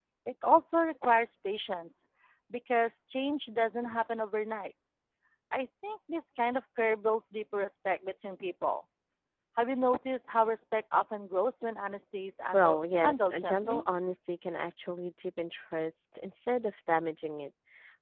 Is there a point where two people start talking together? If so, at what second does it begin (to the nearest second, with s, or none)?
13 s